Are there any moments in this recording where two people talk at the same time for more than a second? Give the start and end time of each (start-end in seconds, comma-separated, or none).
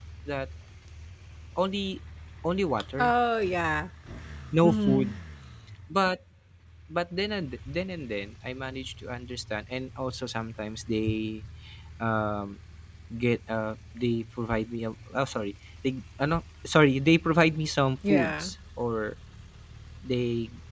none